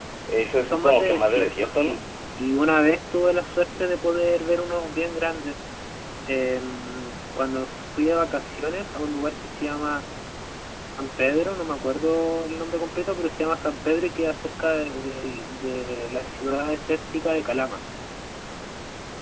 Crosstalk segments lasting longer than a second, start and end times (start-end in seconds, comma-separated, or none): 0.6-2.0